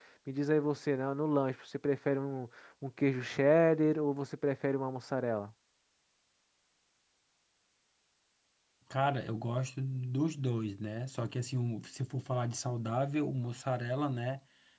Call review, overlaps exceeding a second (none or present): none